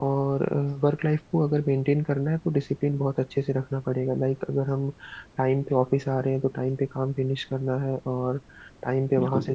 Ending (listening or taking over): taking over